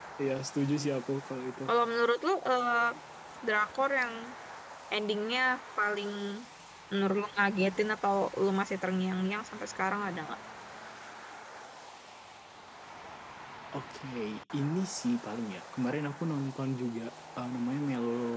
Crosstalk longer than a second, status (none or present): none